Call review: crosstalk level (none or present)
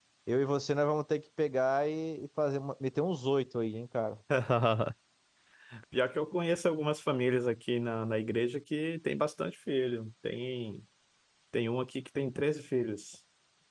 none